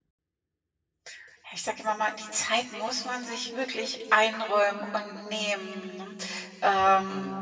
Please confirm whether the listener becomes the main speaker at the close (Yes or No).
No